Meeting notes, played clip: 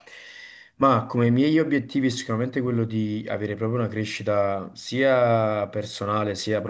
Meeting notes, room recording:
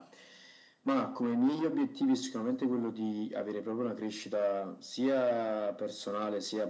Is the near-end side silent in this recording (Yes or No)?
Yes